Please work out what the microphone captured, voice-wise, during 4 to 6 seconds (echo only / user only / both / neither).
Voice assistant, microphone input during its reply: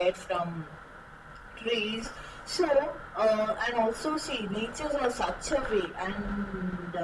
echo only